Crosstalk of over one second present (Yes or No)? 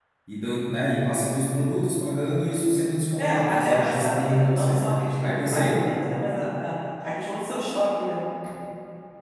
Yes